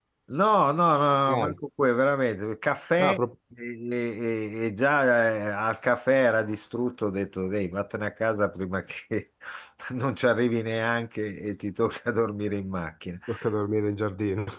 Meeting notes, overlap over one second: none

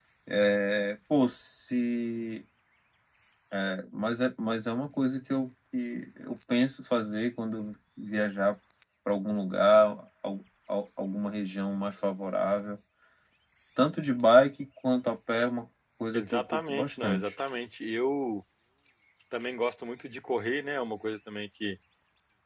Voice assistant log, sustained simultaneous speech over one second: present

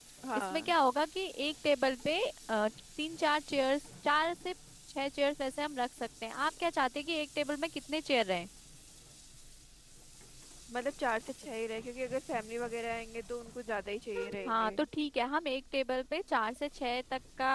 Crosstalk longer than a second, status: none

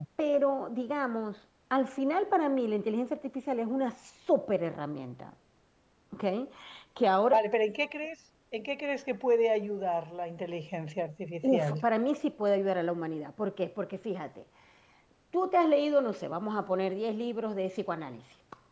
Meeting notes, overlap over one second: none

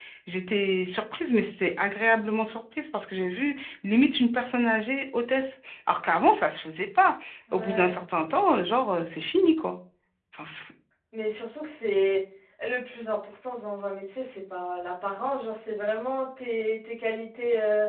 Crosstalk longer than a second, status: none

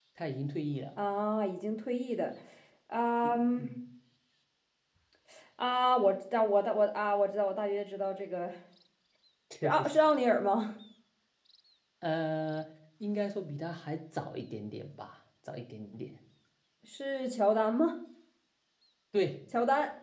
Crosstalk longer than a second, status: none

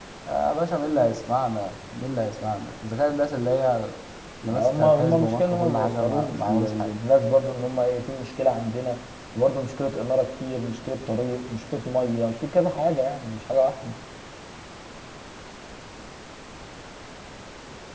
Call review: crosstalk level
present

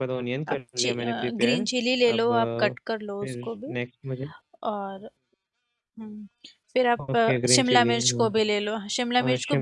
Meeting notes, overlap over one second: present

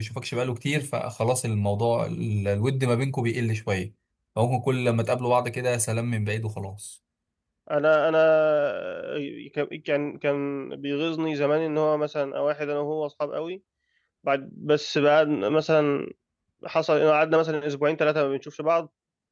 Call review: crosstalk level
none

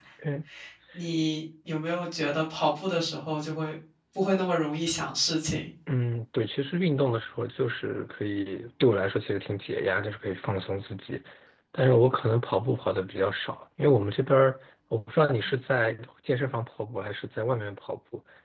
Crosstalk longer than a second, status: none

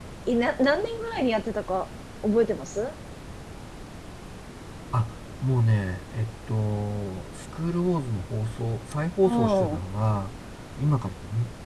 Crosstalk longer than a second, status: none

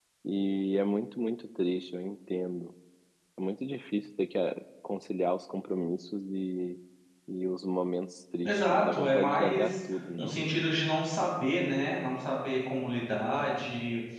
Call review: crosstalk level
present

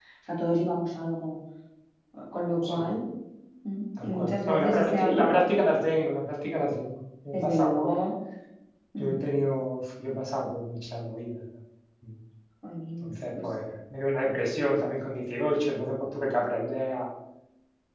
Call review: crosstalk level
present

